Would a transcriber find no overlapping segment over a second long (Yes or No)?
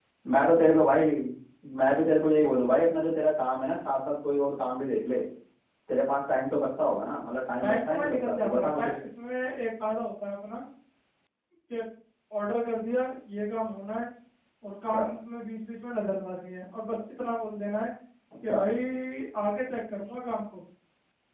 No